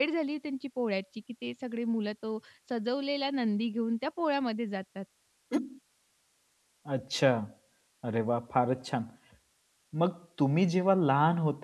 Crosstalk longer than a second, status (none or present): none